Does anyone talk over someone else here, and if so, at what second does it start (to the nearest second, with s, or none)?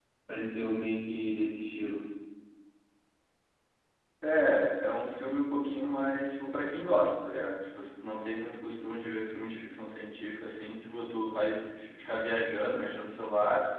none